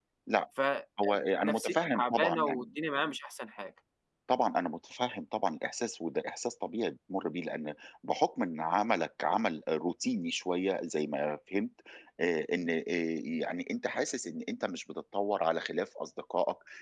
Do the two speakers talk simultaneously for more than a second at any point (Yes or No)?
Yes